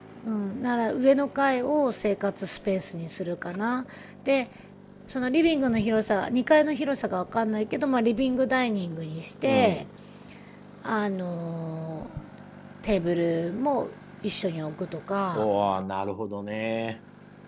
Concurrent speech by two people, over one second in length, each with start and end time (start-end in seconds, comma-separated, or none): none